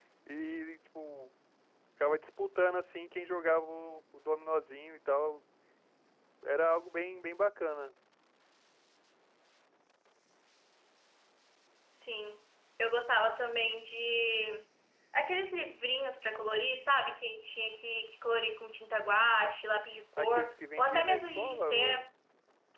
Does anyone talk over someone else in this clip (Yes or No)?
Yes